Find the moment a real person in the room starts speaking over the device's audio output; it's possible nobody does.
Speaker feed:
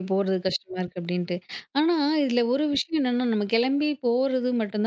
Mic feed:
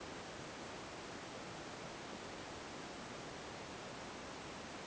none

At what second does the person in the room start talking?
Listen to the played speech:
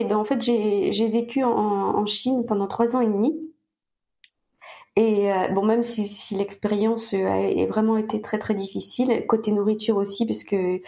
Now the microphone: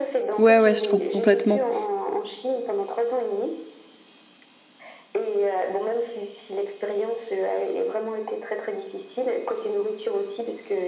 0 s

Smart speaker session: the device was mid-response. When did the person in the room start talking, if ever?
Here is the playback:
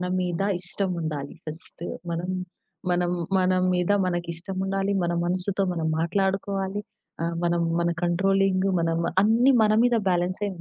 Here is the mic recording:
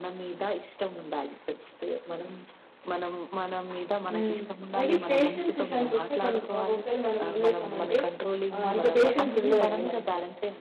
4 s

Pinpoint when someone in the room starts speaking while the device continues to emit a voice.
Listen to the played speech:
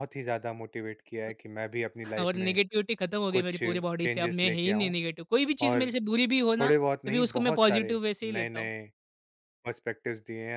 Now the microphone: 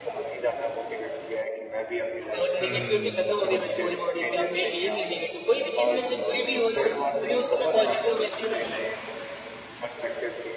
3 s

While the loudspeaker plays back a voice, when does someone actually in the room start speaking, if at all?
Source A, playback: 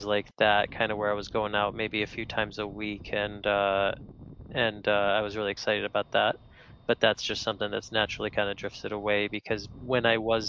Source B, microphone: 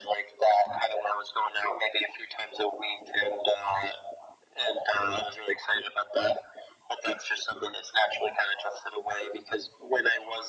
none

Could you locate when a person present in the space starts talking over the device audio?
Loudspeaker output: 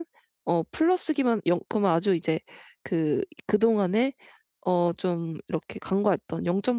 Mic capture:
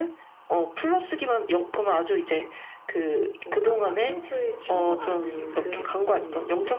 3 s

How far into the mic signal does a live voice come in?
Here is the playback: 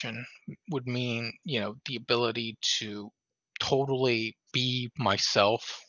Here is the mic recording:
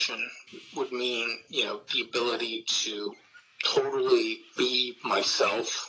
none

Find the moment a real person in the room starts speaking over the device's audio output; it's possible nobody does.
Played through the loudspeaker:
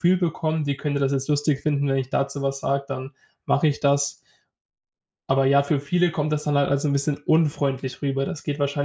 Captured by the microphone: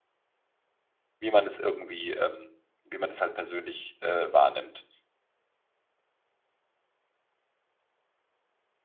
1 s

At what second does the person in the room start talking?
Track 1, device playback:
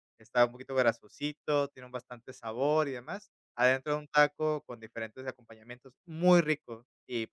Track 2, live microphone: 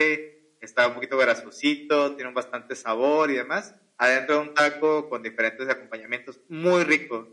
none

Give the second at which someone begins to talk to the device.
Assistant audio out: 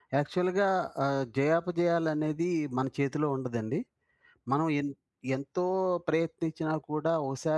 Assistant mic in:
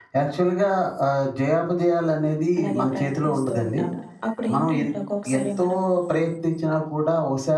3 s

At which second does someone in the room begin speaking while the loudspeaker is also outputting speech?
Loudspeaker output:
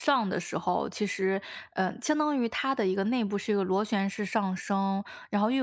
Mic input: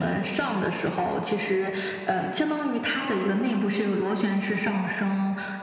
none

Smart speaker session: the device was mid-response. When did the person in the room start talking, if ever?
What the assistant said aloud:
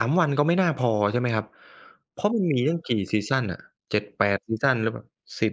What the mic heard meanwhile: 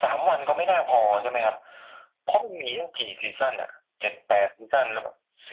none

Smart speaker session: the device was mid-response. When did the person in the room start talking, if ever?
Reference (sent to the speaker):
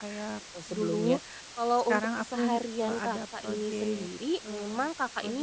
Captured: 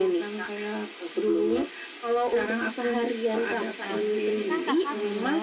4 s

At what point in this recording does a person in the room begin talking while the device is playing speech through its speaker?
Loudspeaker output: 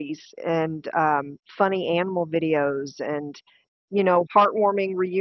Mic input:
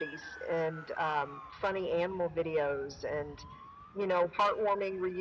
none

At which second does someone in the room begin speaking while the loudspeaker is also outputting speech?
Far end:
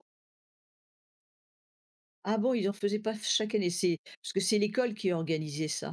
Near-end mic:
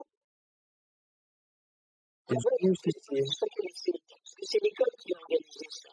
2 s

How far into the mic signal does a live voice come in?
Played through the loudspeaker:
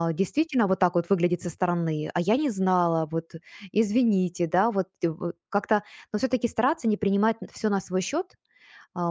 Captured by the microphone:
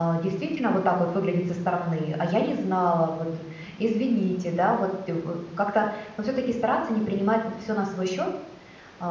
none

